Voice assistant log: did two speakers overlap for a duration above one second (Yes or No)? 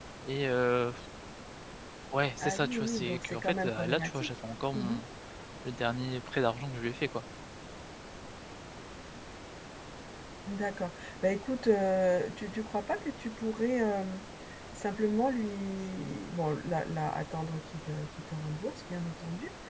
Yes